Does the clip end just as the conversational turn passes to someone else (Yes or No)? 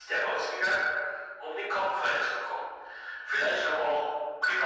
No